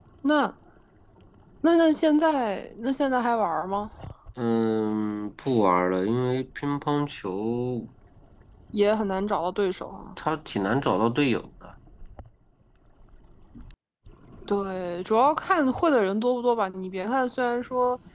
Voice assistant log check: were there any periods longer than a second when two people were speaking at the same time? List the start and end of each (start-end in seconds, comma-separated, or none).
none